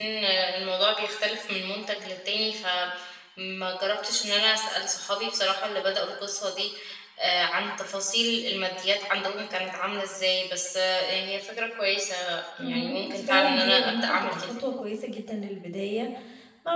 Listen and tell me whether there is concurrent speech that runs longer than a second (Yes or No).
Yes